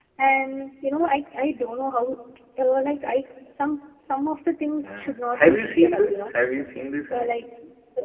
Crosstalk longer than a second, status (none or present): present